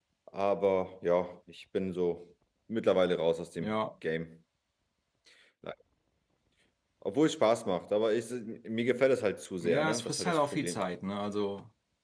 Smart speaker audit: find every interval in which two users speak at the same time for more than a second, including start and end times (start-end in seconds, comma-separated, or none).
9.6-10.8